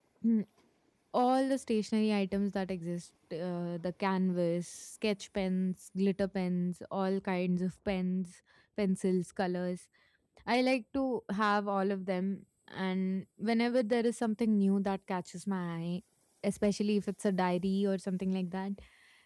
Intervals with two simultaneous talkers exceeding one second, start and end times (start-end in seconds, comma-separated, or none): none